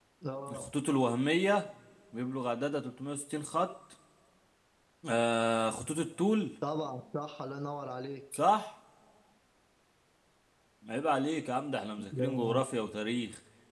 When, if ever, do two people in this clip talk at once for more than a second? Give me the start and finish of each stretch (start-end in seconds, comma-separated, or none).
none